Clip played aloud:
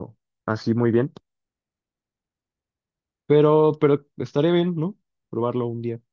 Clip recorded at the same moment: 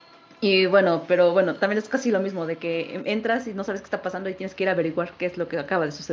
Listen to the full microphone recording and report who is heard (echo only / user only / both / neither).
user only